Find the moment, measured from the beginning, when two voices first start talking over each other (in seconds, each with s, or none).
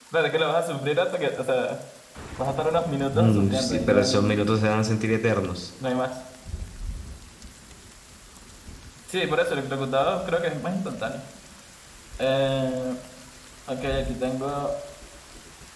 3.1 s